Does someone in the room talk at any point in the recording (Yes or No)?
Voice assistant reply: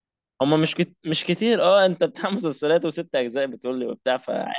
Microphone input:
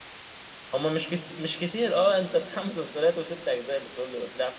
No